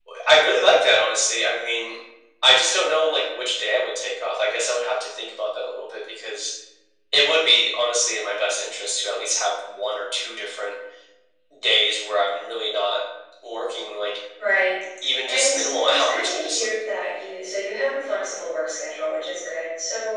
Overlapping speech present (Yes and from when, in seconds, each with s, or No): Yes, from 15.3 s